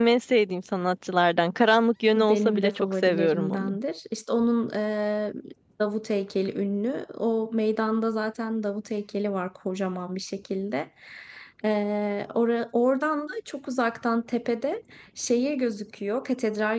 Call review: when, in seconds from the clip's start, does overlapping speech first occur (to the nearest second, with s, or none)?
2 s